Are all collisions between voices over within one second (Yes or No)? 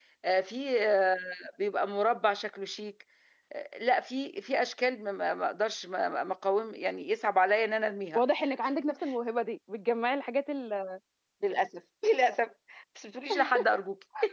Yes